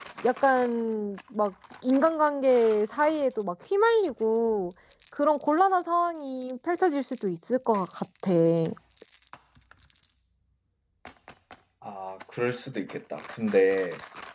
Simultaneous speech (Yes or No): No